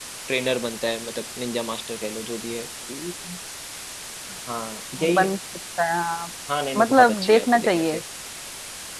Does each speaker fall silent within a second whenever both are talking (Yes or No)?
No